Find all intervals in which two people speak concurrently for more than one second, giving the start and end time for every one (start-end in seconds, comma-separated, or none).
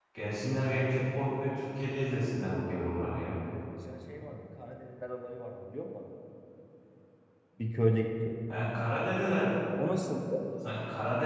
none